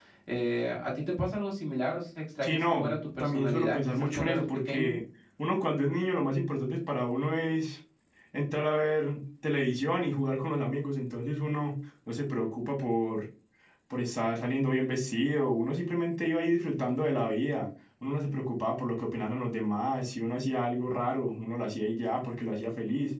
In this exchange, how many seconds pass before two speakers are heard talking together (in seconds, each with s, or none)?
2.4 s